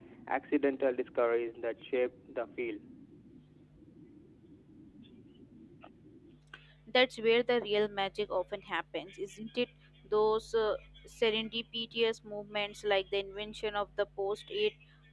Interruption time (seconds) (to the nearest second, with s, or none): none